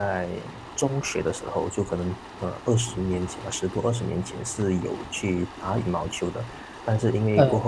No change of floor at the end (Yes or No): Yes